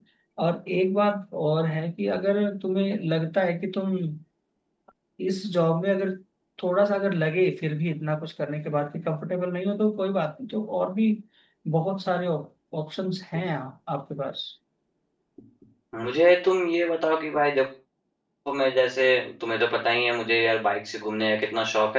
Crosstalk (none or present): none